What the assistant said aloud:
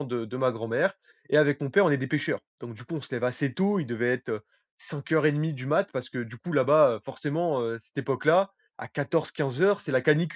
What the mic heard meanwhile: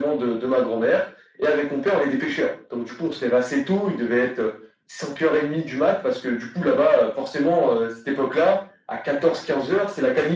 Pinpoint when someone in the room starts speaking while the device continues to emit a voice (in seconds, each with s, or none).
none